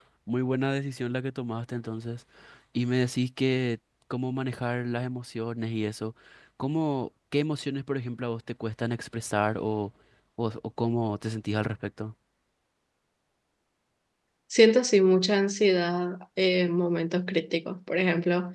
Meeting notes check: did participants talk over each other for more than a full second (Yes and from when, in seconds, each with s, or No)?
No